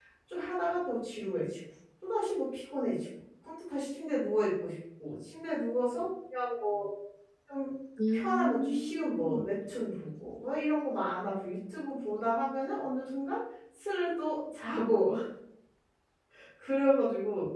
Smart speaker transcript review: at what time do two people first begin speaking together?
8 s

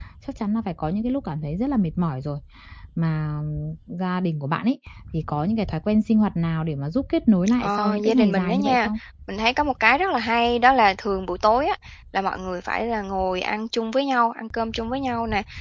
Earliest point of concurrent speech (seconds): 8 s

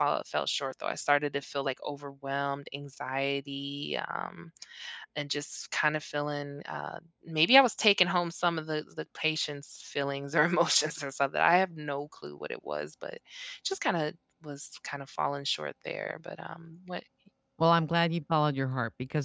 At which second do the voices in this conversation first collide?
none

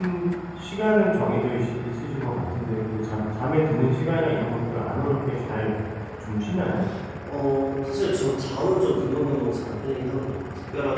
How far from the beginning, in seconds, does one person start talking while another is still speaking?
none

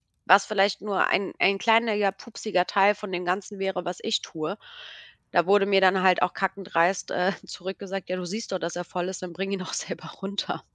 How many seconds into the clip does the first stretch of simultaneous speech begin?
none

